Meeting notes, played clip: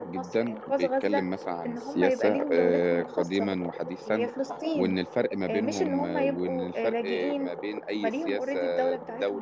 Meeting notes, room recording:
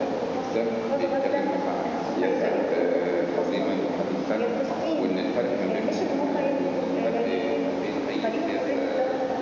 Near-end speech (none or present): none